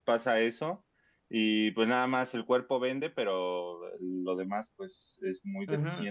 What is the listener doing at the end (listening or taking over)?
taking over